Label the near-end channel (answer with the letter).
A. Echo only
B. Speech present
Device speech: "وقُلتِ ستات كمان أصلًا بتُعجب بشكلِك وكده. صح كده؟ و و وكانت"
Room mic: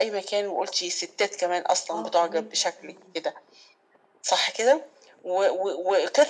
B